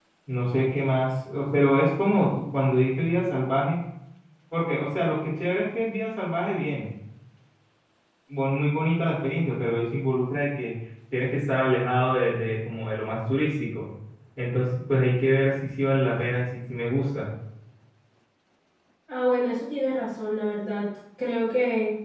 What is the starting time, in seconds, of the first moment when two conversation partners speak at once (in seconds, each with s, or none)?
none